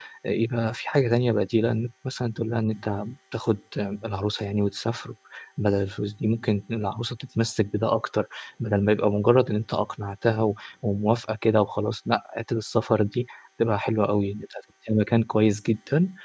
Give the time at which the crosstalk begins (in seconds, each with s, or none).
none